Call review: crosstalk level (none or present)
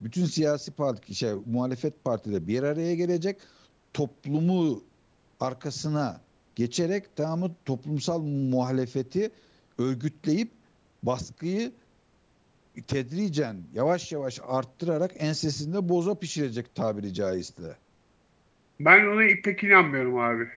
none